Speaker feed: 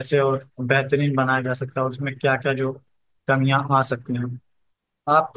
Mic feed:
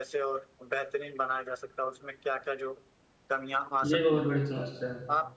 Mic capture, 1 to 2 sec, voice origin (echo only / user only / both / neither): echo only